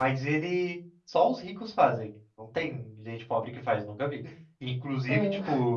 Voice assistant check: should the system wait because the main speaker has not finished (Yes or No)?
Yes